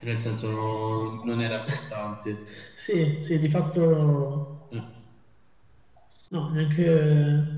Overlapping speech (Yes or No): No